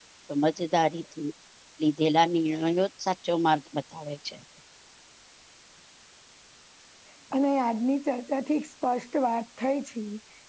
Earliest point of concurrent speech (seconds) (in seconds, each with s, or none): none